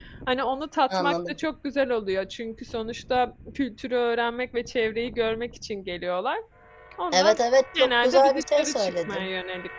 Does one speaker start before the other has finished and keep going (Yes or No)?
Yes